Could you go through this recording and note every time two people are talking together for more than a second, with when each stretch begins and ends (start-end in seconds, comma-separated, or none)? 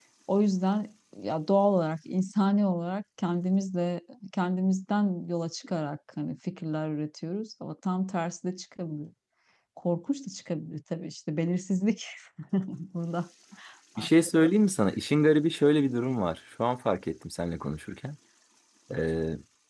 none